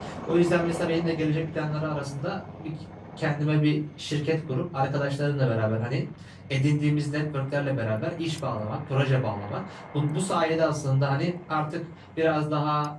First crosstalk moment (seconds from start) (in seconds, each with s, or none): none